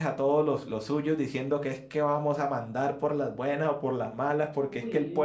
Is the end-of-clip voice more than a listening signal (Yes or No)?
No